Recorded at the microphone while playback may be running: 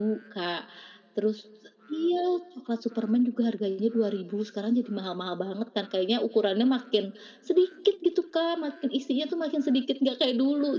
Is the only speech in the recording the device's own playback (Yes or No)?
Yes